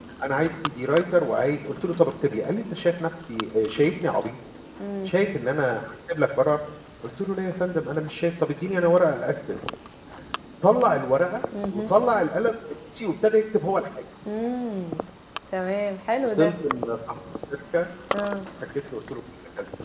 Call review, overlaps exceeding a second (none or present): none